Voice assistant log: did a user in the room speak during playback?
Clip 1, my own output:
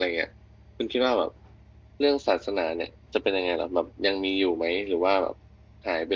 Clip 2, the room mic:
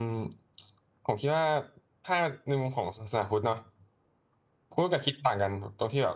Yes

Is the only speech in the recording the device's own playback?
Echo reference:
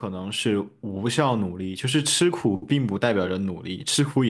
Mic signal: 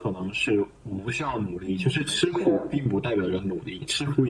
No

